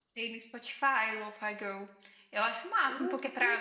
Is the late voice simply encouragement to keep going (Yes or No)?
Yes